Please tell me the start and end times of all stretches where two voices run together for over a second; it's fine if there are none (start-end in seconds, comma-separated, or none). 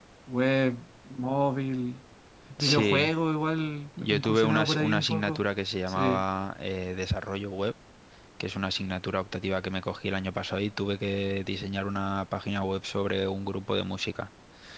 4.0-5.4